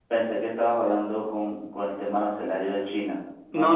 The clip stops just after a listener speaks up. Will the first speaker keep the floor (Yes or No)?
No